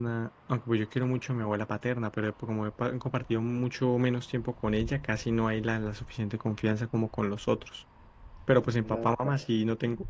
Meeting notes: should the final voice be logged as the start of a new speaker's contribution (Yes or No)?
No